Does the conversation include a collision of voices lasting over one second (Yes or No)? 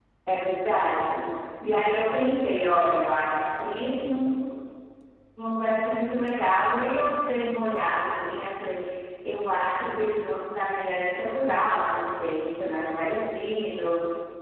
No